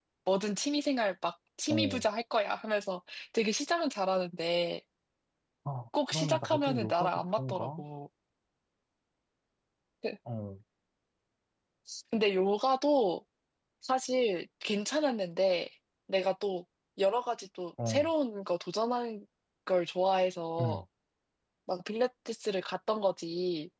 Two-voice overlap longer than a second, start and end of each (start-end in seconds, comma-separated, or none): 6.1-7.8